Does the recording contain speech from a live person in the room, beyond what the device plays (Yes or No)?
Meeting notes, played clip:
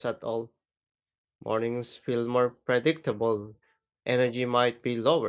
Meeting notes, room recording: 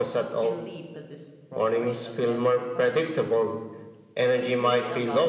Yes